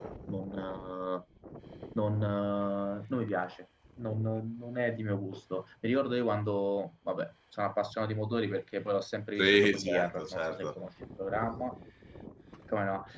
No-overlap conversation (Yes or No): No